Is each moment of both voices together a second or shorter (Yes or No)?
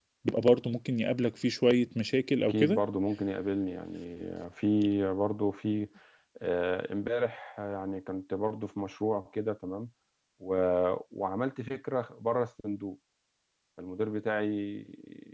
Yes